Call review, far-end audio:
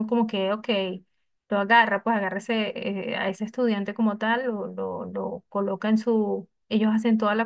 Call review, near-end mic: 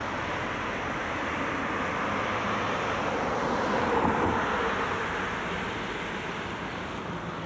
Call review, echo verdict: none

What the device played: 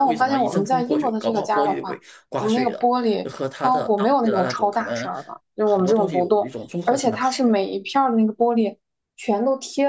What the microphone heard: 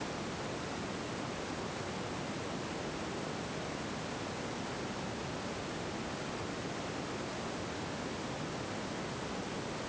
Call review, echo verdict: none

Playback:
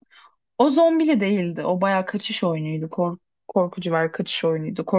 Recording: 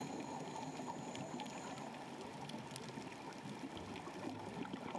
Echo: none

